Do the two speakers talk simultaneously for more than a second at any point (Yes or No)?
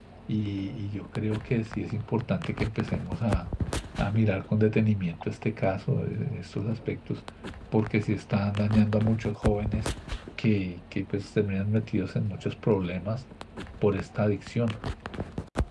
No